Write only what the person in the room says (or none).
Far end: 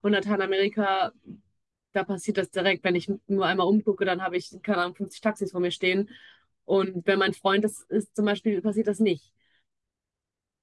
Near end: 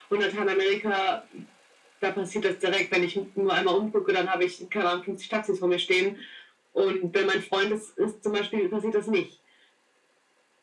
none